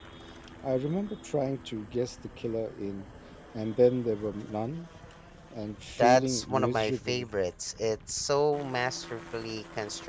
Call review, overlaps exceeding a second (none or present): present